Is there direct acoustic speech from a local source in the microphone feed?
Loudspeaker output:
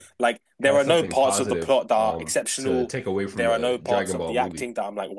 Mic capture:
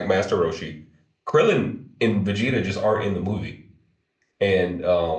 Yes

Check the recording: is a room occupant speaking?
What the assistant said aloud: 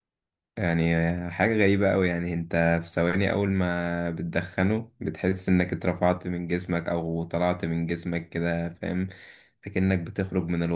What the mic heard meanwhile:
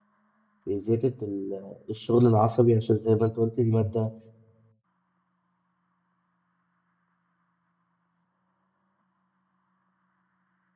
Yes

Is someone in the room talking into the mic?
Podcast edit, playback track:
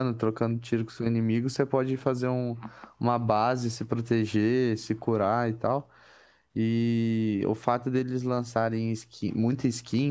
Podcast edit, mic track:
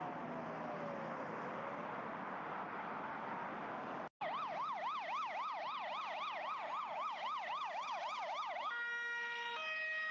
No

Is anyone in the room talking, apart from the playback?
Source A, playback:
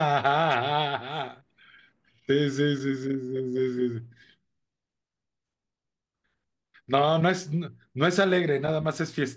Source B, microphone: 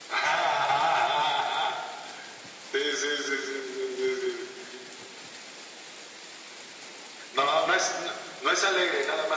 No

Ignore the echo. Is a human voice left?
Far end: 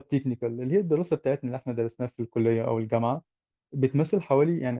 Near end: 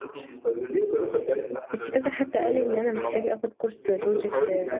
Yes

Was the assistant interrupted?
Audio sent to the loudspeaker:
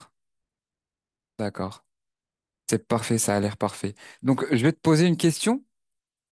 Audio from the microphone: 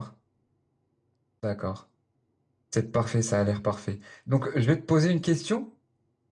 No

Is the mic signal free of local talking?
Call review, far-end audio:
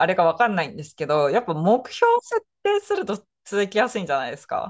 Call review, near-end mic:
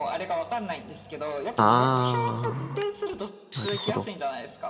No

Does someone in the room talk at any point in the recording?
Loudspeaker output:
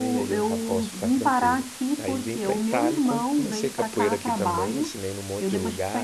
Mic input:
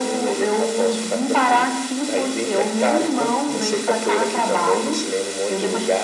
No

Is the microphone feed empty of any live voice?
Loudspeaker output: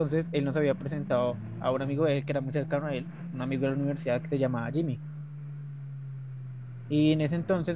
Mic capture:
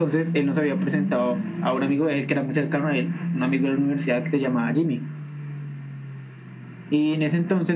Yes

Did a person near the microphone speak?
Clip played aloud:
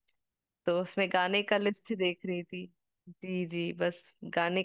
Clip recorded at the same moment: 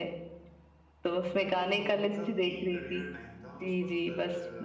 Yes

